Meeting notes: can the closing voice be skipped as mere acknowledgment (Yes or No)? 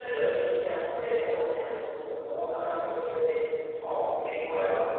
No